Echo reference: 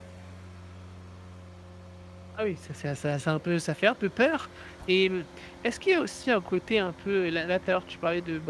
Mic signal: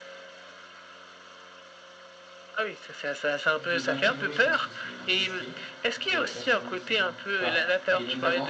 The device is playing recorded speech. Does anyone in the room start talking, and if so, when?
3.5 s

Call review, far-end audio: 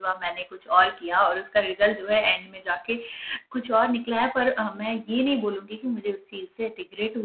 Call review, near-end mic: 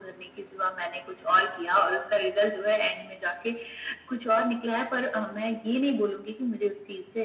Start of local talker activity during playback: none

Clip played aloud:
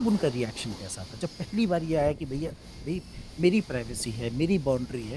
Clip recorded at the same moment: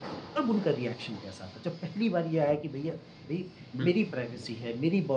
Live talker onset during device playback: 3.7 s

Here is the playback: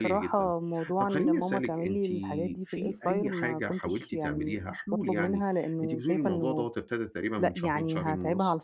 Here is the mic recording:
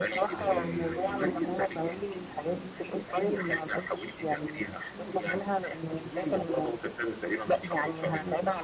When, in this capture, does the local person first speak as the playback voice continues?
0.3 s

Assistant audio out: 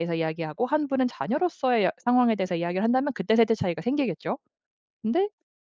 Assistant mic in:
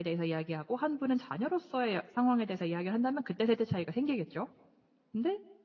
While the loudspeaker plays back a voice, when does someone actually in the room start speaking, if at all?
none

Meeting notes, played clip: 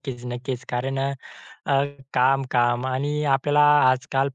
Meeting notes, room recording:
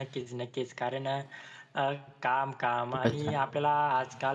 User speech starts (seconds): 2.9 s

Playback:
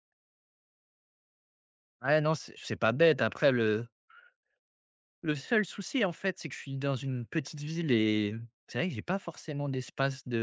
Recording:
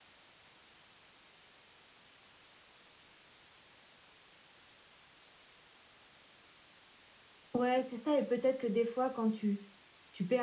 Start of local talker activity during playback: 7.5 s

